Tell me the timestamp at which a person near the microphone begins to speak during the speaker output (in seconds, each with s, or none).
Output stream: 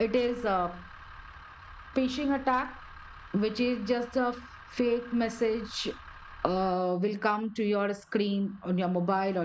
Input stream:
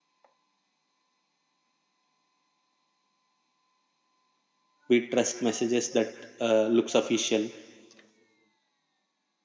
4.9 s